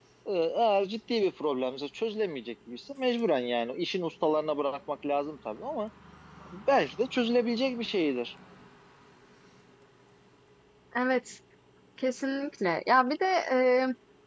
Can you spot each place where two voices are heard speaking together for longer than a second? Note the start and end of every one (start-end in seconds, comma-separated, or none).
none